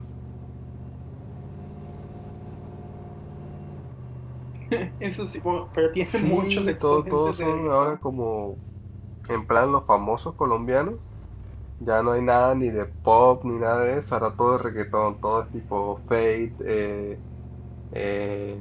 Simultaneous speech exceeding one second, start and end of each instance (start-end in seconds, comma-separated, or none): 6.0-8.0